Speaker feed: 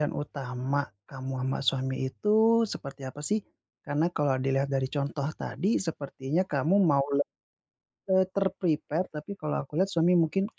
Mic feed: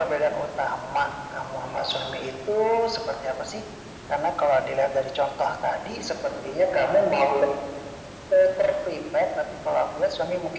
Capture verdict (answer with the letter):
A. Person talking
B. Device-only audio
B